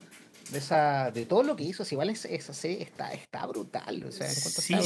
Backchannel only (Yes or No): No